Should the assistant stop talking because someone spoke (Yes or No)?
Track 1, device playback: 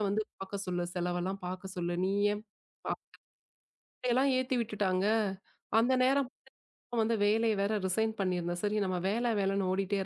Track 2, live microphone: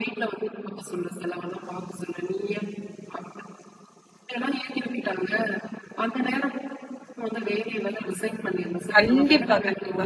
Yes